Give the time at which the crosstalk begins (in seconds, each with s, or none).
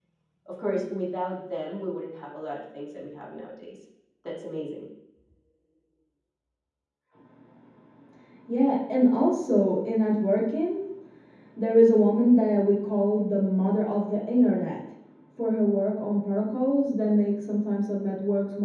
none